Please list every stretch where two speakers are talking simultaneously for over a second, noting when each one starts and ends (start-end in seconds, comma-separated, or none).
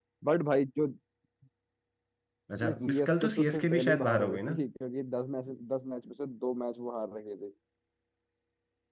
2.6-4.5